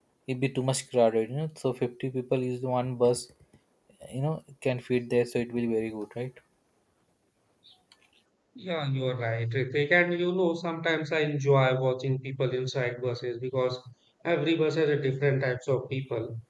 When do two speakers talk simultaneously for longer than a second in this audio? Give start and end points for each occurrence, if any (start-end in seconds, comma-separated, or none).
none